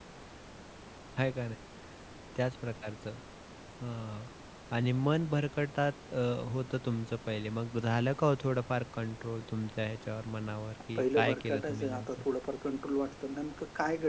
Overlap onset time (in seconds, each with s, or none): 10.9 s